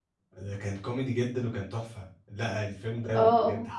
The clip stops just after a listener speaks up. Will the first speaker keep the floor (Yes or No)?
Yes